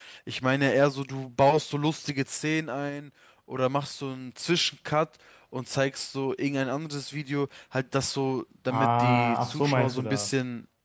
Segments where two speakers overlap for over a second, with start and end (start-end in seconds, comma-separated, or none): 8.7-10.3